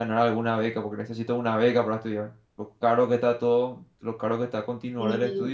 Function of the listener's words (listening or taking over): taking over